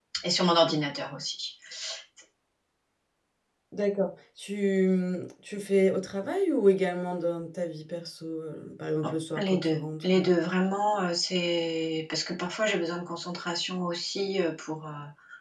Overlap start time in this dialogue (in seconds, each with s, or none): 9.0 s